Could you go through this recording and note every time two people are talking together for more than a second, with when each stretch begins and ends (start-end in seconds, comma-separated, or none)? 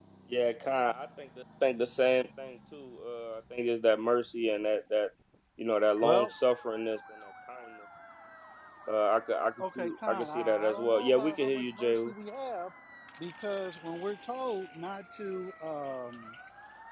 9.6-12.1